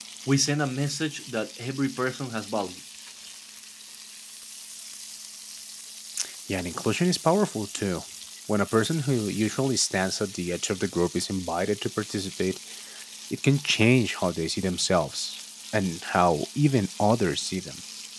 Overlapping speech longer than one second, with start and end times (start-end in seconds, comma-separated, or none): none